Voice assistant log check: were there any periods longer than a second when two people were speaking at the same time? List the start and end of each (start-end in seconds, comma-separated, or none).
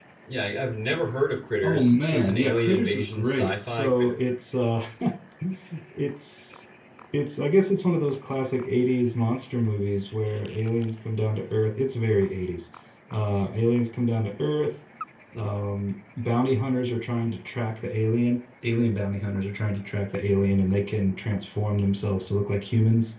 1.6-3.9